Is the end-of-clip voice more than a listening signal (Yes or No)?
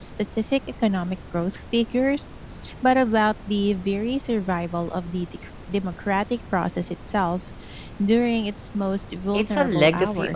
Yes